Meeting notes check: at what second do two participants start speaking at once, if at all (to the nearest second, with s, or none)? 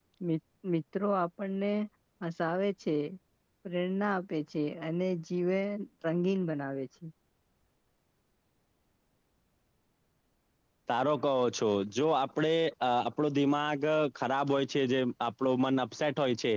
none